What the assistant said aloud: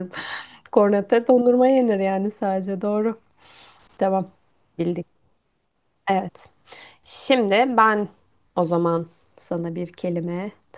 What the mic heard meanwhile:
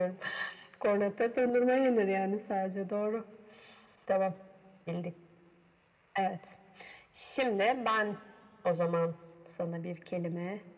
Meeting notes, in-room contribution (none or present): none